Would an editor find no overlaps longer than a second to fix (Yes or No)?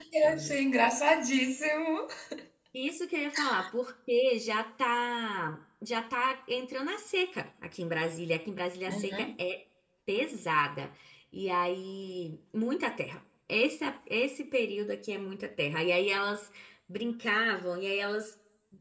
Yes